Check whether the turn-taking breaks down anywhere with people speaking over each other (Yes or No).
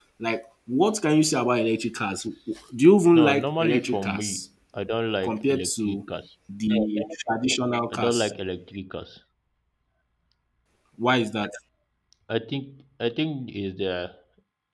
Yes